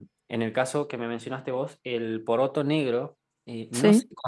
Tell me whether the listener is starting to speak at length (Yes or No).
No